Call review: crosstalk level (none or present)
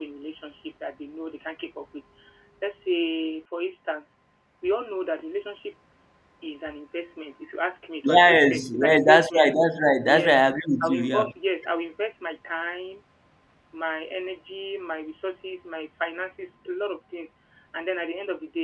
present